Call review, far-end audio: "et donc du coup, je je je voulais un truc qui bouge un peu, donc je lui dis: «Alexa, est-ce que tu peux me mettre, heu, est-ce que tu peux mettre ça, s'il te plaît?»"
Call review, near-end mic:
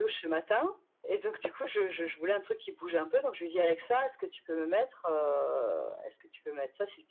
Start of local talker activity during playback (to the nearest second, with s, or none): none